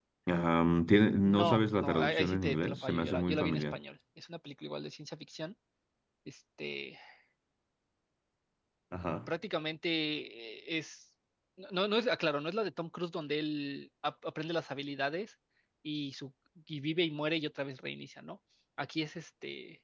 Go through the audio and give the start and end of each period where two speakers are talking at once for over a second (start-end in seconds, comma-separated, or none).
1.2-3.8